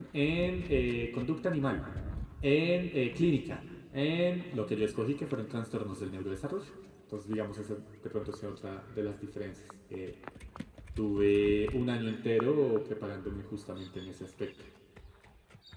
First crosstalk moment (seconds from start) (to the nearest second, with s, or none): none